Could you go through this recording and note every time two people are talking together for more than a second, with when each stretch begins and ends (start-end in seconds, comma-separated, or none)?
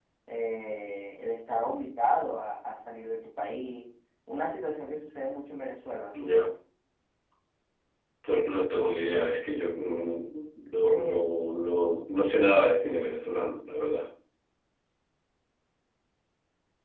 none